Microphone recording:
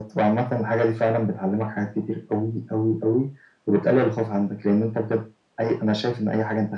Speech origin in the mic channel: echo only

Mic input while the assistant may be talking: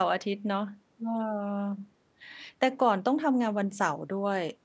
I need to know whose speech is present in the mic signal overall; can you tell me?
user only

